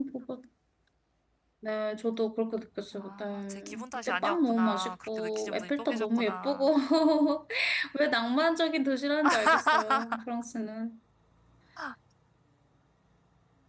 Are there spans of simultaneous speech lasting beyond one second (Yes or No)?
Yes